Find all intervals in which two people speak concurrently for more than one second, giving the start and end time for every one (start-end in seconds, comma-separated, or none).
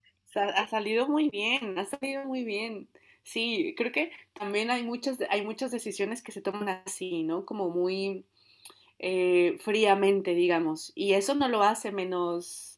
none